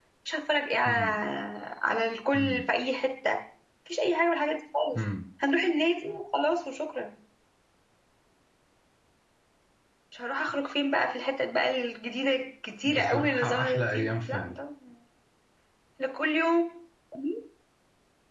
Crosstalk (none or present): present